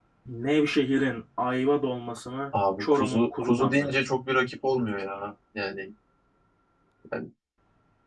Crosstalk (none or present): present